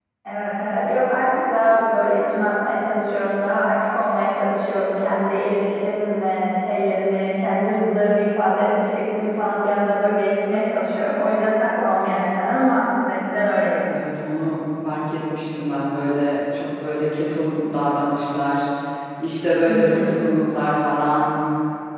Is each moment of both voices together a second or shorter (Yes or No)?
Yes